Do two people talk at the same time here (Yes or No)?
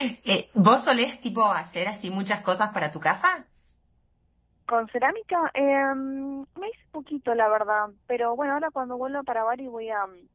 No